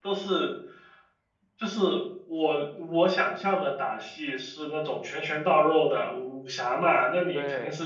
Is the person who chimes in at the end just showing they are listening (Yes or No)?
Yes